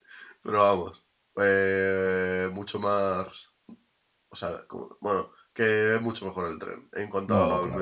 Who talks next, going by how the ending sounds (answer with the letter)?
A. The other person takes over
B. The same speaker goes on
A